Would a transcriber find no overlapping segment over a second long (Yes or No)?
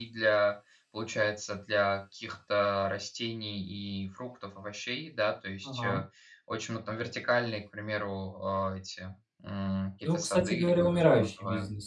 No